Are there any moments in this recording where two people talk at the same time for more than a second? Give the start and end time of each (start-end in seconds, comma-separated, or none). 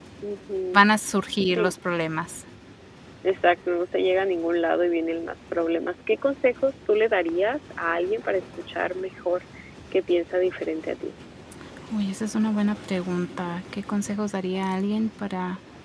none